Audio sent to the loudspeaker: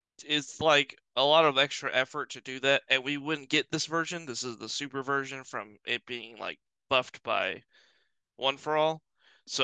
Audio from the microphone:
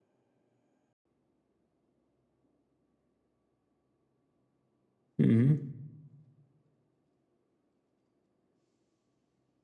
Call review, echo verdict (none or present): none